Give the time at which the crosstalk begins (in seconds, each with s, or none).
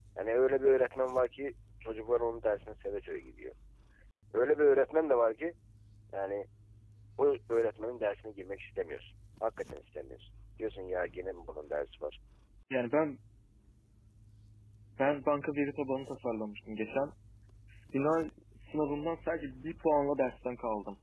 none